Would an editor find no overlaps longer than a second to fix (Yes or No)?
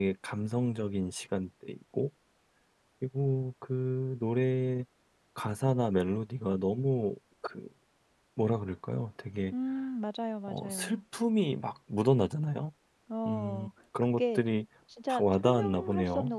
No